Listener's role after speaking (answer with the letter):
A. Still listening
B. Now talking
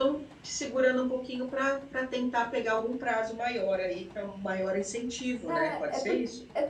B